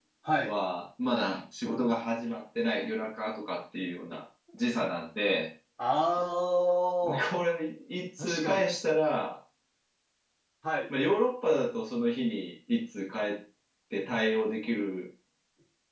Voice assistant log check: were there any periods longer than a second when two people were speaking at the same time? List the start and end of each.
none

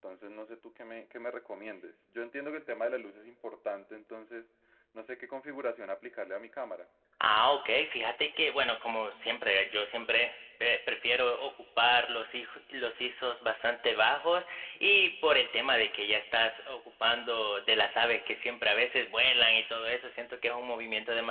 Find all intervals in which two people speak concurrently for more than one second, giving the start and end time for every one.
none

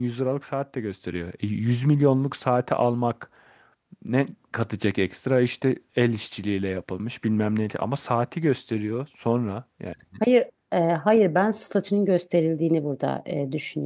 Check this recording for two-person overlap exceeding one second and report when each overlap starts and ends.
none

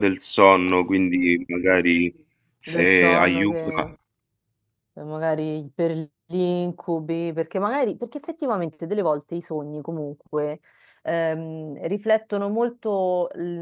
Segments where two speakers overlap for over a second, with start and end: 2.7-3.9

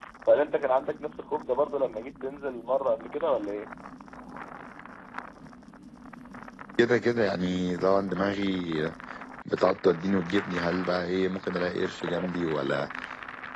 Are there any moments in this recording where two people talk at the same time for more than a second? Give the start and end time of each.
none

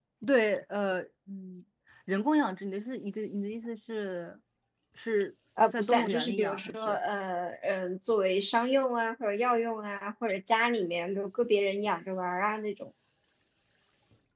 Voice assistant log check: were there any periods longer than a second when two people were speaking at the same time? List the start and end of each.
5.8-7.0

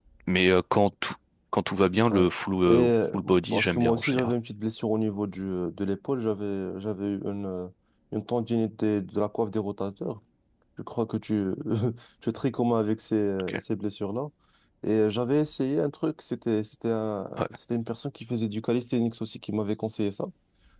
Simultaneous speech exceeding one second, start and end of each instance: 2.7-4.3

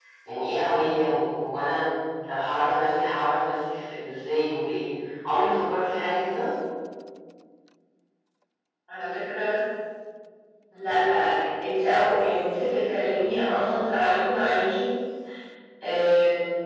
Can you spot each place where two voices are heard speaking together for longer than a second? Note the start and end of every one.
none

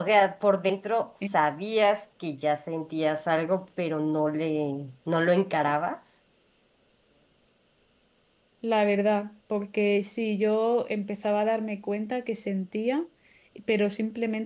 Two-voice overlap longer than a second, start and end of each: none

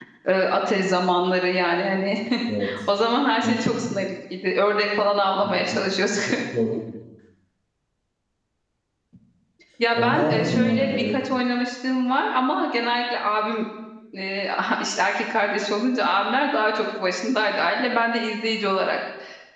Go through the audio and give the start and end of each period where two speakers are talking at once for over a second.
9.9-11.1

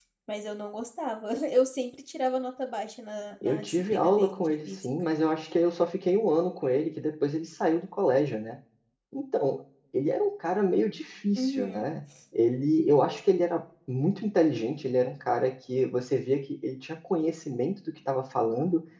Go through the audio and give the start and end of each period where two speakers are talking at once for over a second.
3.4-4.8

